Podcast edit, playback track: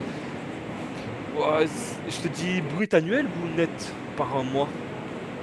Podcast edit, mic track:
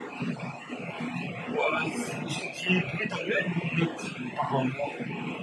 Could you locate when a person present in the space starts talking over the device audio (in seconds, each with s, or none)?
none